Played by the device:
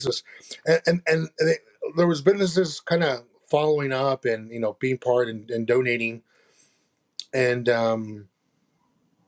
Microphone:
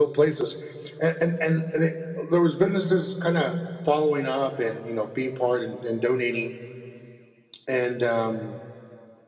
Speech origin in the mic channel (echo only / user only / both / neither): echo only